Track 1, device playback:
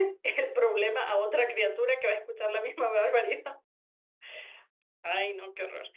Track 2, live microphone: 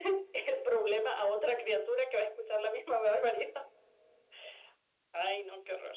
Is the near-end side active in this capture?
No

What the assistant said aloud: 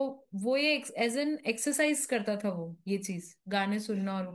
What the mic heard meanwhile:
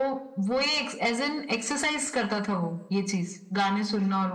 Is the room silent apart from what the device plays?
Yes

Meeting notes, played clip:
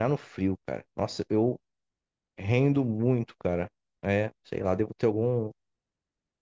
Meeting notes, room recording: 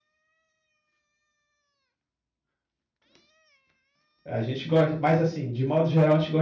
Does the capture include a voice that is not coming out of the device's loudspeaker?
Yes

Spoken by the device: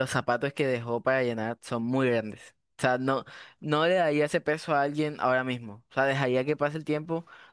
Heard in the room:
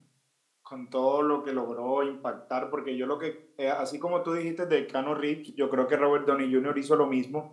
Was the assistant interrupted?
Yes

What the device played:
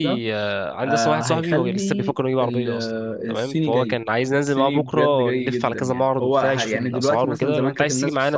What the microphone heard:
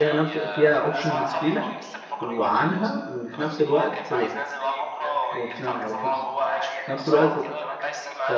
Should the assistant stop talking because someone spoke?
Yes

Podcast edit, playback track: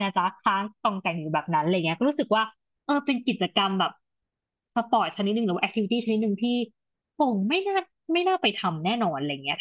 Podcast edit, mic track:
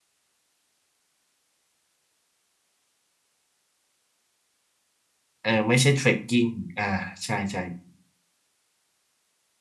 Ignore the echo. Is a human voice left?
Yes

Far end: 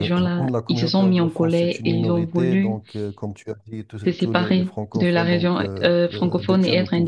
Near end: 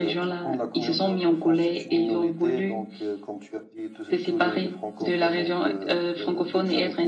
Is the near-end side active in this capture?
No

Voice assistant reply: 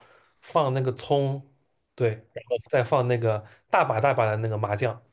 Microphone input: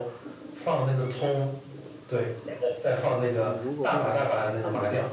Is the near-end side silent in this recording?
No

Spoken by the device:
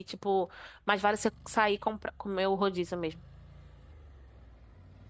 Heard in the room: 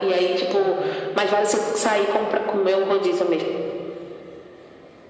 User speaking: Yes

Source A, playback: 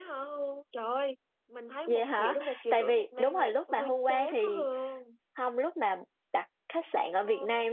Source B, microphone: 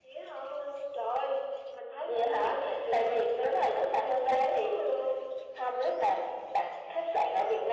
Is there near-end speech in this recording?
No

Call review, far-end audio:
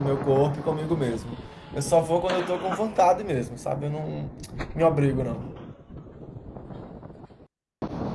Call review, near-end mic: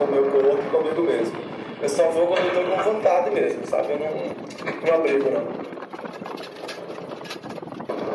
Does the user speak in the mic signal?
No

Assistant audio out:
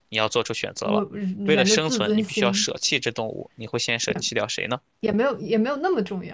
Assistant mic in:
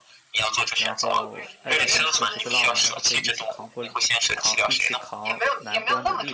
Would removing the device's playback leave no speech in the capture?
No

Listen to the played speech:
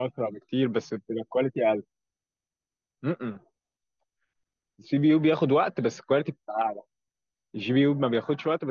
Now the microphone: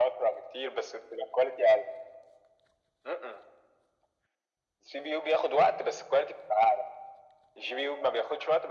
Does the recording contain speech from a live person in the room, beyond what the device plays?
No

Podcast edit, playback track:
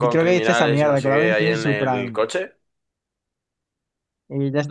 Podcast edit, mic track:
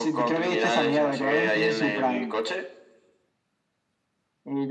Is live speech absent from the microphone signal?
Yes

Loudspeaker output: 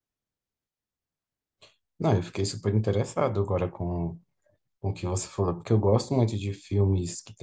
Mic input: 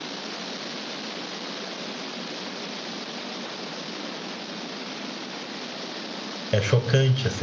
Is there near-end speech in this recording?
Yes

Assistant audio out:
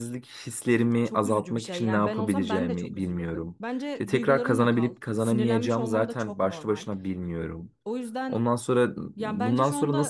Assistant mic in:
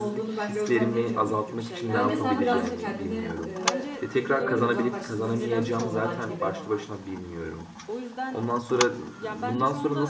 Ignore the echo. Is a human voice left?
Yes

